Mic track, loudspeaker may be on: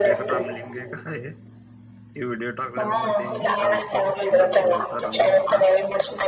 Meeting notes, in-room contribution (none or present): present